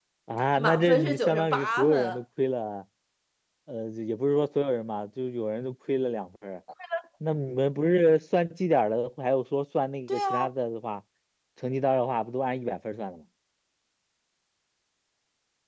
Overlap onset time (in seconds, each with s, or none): 0.6 s